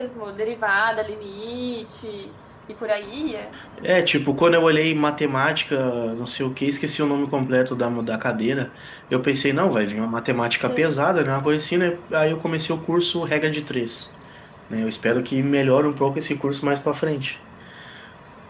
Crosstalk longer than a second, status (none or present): none